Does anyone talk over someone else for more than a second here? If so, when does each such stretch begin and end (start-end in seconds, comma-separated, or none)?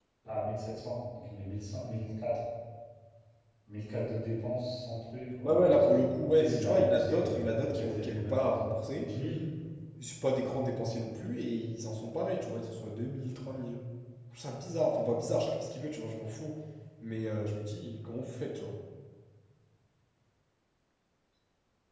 5.4-8.5